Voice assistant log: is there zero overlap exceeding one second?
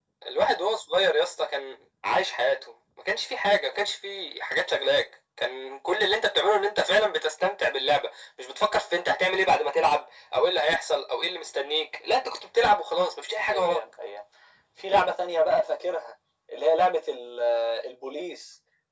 Yes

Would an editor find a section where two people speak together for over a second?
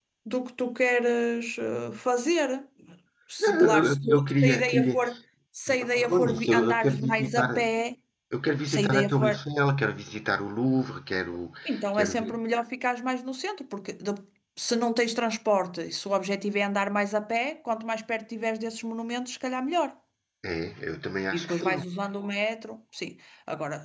Yes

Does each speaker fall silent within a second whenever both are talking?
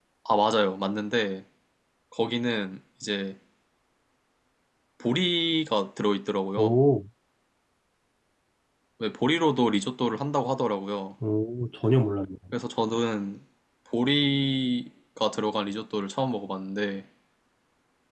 Yes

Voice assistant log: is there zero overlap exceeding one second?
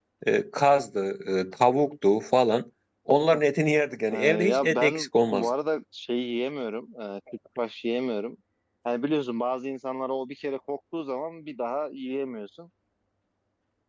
No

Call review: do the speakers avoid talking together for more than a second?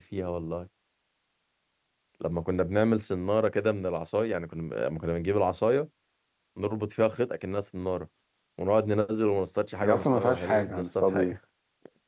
No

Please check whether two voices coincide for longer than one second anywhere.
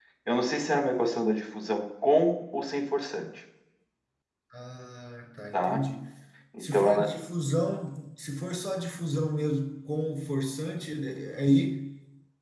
No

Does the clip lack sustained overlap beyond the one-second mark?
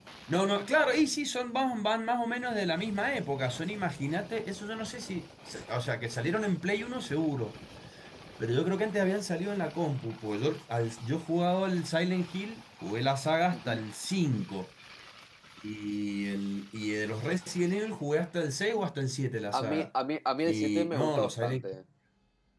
No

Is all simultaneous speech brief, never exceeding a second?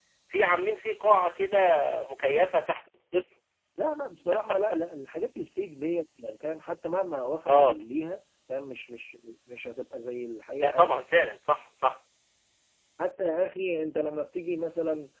Yes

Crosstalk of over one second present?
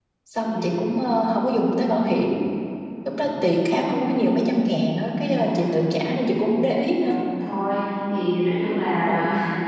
No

